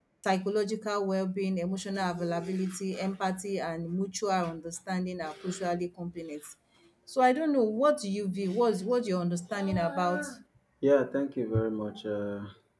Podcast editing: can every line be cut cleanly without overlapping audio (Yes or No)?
Yes